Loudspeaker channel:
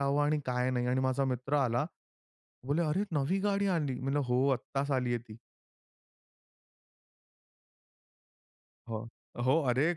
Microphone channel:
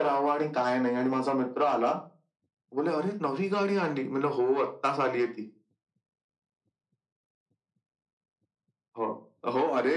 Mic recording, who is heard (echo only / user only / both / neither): echo only